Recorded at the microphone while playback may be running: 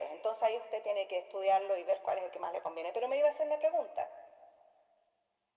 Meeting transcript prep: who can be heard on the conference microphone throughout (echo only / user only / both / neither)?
echo only